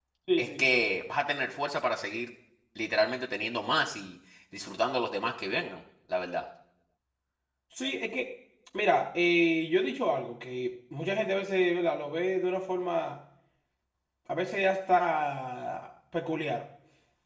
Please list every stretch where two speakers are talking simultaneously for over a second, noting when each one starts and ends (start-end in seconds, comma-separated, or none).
none